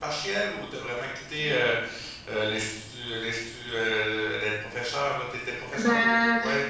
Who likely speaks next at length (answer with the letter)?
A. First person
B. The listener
B